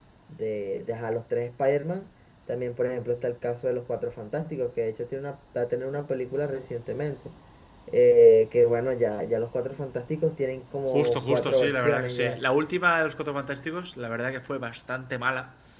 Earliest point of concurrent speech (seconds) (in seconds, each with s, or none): 10.9 s